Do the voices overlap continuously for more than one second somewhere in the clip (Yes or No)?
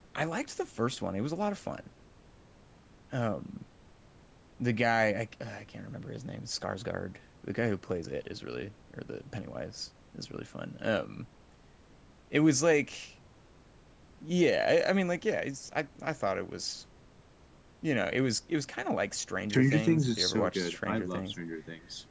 Yes